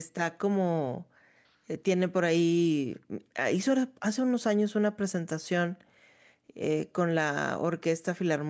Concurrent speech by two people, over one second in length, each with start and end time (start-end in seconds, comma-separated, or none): none